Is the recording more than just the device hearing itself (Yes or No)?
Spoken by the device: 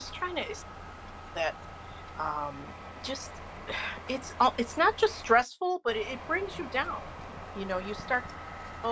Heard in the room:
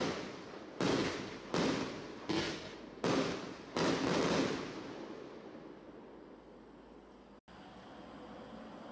No